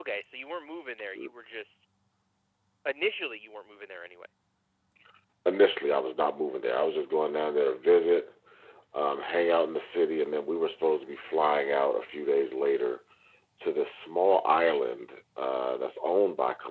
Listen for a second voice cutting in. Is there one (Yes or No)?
No